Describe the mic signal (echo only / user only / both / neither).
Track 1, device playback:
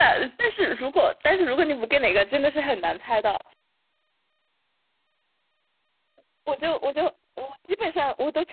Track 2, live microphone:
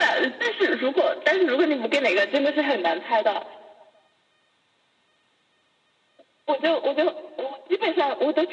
echo only